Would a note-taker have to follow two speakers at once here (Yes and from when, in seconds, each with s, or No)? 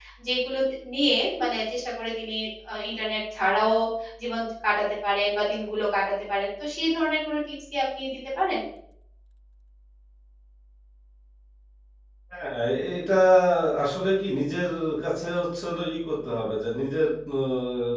No